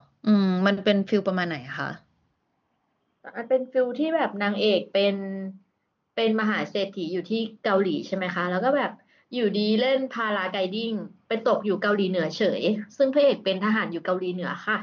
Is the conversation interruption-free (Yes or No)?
Yes